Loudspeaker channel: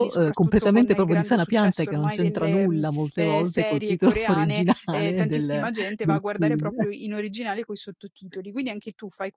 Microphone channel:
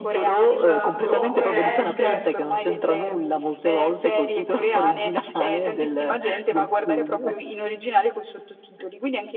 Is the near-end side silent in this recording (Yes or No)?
No